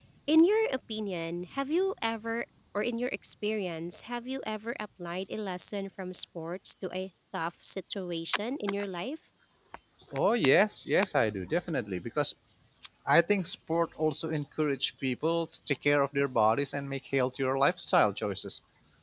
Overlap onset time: none

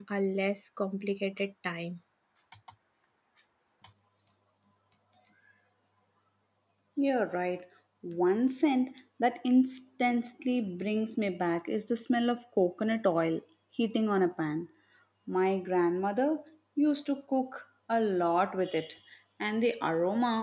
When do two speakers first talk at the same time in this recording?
none

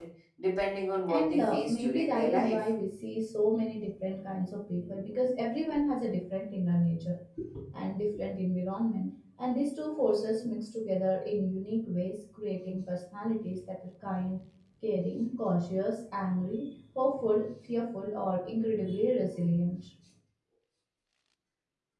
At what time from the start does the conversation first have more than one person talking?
1.1 s

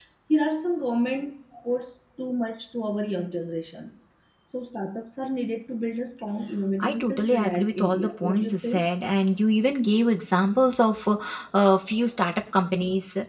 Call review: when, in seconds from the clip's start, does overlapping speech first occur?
6.8 s

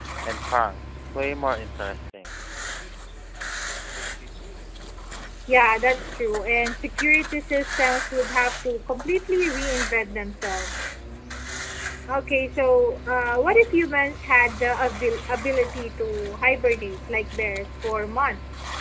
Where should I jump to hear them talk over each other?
none

